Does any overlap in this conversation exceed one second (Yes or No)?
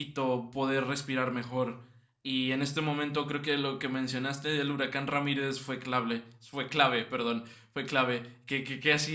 No